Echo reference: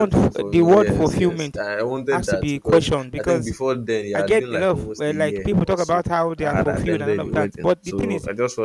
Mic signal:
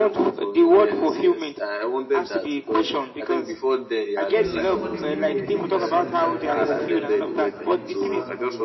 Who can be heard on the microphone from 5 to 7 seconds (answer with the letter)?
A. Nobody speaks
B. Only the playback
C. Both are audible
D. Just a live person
C